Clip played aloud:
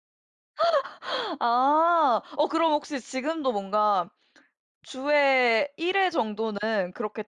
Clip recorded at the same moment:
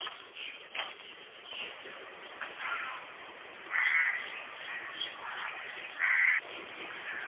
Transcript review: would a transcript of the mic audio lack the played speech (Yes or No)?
Yes